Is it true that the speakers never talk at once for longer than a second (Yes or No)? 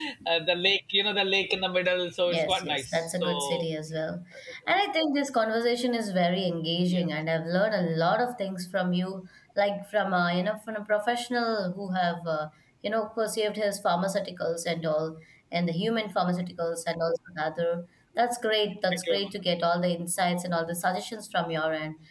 No